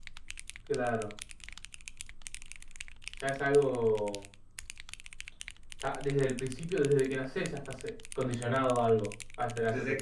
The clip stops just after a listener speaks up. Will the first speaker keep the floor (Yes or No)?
No